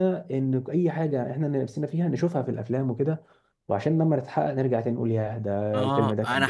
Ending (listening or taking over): taking over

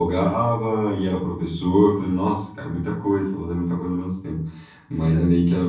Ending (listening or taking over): listening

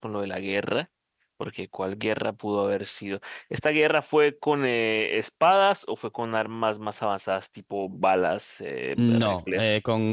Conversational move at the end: taking over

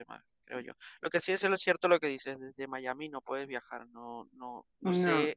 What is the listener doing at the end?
listening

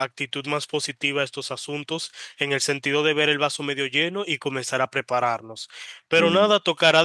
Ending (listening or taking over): listening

